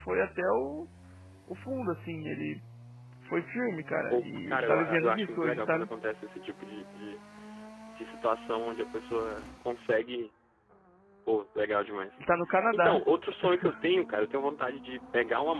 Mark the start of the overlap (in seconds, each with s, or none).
4.1 s